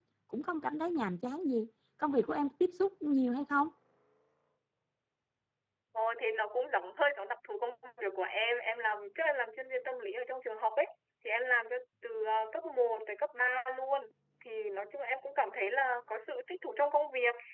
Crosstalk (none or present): none